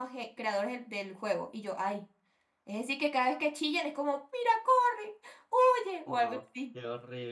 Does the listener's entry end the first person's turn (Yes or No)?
Yes